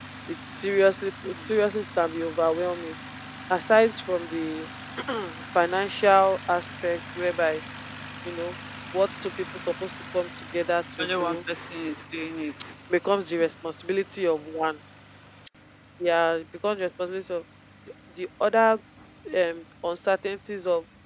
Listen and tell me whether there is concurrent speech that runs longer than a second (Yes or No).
No